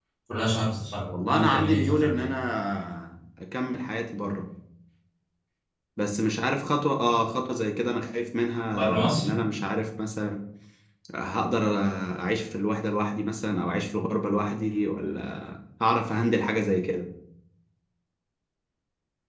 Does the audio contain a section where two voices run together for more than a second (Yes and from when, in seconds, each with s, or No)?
Yes, from 1.1 s